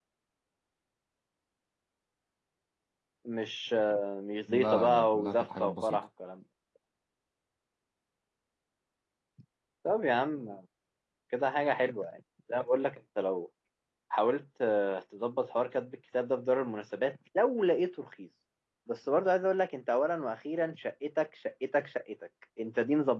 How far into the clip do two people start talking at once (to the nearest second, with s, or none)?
4 s